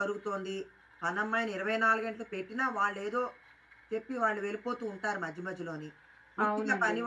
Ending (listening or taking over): listening